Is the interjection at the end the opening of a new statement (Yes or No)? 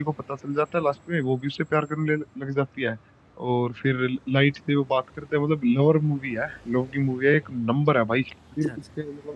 No